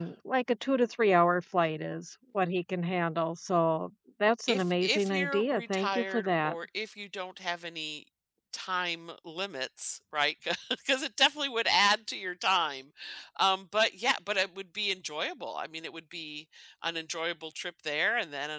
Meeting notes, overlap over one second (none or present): present